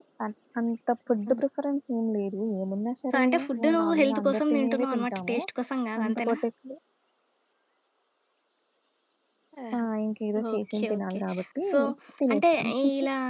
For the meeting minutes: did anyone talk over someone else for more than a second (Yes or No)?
Yes